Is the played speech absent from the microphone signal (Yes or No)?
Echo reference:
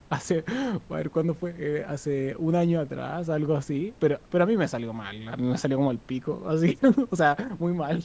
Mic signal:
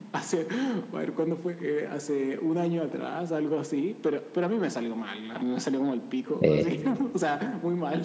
No